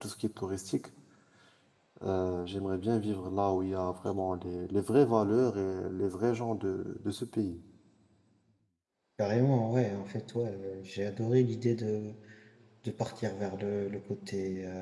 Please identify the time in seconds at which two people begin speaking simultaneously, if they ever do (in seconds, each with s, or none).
none